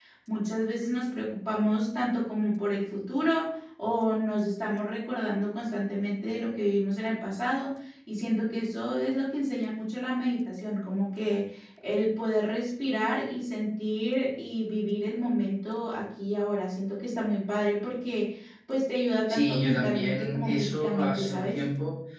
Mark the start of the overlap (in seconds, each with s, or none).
19.3 s